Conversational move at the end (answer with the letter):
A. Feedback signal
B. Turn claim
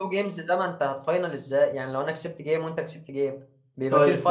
B